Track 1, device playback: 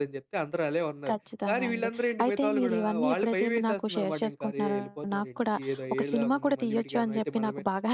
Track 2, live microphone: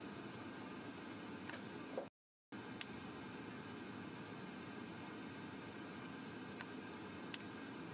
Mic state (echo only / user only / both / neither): neither